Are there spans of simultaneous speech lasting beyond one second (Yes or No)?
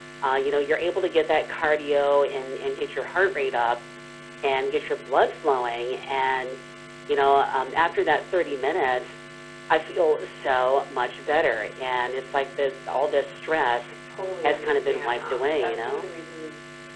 Yes